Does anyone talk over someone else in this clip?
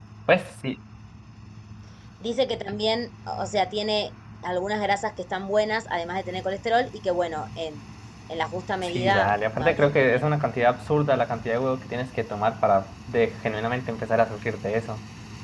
Yes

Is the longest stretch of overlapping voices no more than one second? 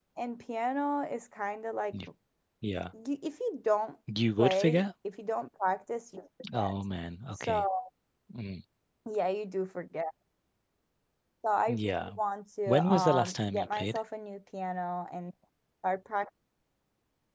No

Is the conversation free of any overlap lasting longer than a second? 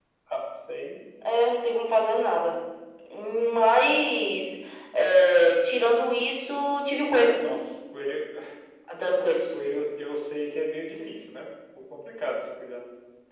Yes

